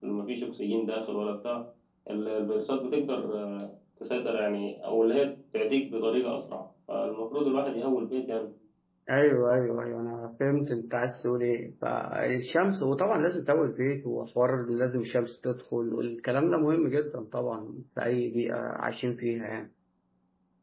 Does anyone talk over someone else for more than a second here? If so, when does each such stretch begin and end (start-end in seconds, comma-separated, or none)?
none